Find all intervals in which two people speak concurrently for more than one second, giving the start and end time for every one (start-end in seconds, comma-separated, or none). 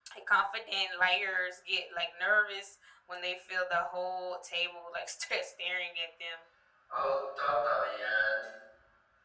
none